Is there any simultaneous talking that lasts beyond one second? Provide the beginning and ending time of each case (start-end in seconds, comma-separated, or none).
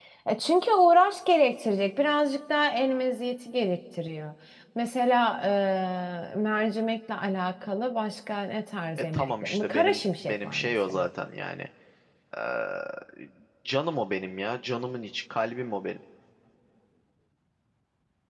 8.9-11.0